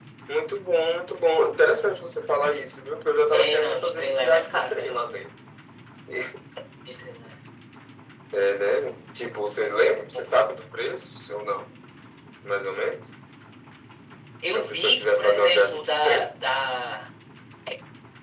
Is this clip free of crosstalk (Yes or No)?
No